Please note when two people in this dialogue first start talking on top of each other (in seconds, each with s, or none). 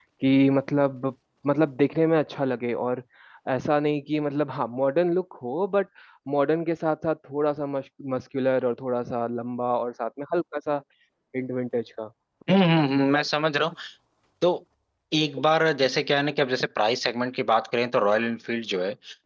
none